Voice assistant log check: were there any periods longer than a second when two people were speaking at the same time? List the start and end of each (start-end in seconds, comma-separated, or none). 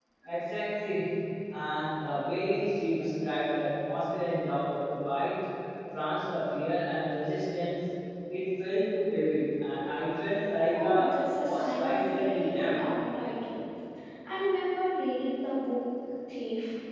10.7-12.8